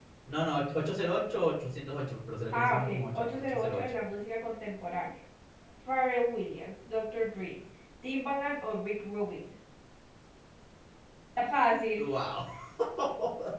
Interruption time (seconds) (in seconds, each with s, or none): 2.5 s